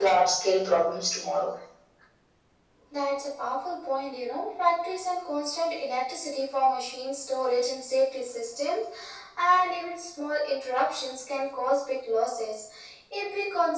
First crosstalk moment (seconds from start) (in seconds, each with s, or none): none